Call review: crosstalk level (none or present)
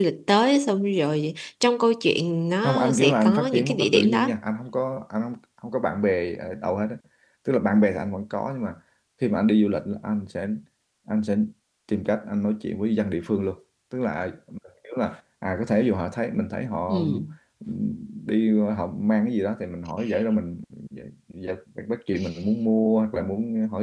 present